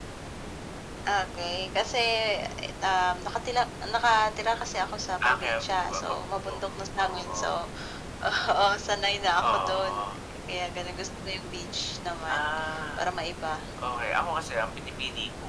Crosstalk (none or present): present